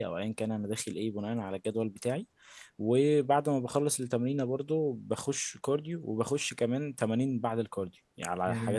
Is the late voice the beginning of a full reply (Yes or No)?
Yes